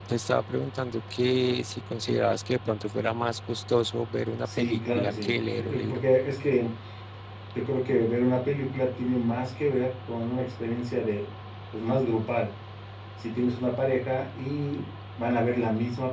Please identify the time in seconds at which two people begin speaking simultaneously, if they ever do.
4 s

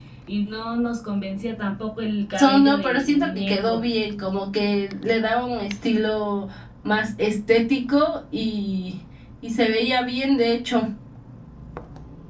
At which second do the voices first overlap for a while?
2 s

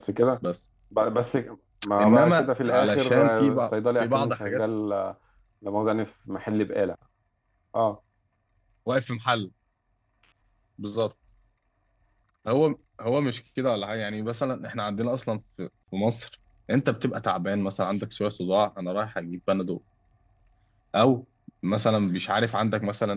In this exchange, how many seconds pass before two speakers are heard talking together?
2 s

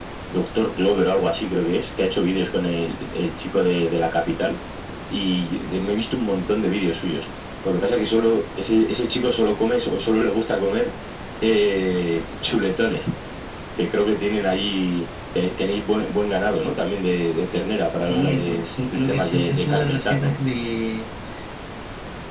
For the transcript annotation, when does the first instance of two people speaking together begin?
18 s

